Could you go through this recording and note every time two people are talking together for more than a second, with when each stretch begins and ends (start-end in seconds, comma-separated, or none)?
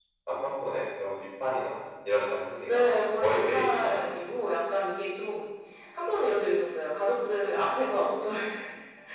2.6-4.5